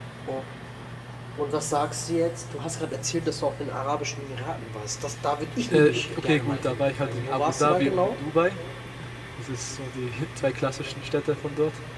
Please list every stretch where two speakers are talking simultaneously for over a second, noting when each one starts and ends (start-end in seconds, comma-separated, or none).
5.7-8.2